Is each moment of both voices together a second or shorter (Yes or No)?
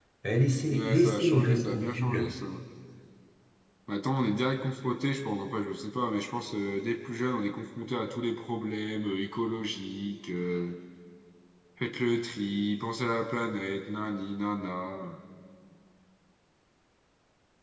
No